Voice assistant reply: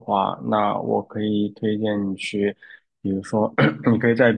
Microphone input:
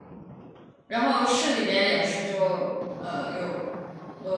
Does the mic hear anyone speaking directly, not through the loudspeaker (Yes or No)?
Yes